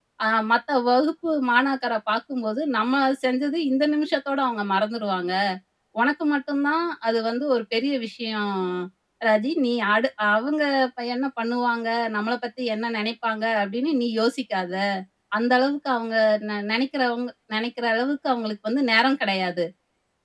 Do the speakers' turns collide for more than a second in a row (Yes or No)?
No